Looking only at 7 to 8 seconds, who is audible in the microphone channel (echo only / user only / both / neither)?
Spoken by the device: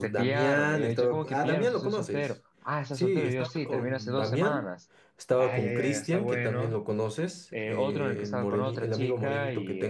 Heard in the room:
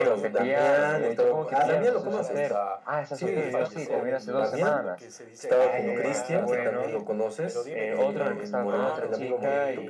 both